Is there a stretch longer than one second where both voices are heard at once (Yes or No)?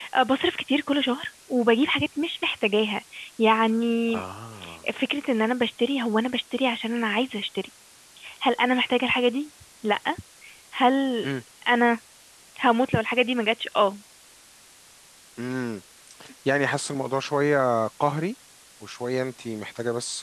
No